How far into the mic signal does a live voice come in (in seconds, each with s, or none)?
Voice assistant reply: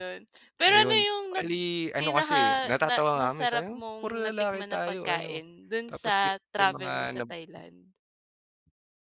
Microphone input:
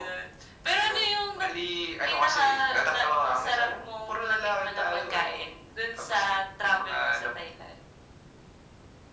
none